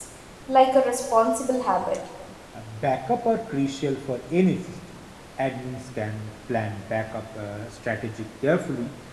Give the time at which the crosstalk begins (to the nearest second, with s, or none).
none